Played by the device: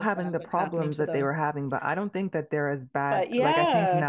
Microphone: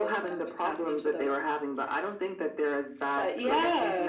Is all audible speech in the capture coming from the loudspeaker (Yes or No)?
Yes